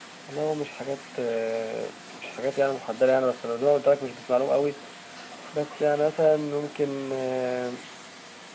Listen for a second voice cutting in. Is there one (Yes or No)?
No